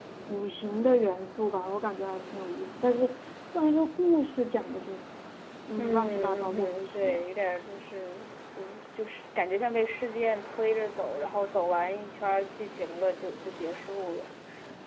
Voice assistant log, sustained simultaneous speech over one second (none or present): present